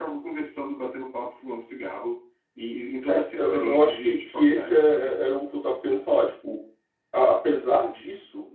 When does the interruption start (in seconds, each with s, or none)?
3.1 s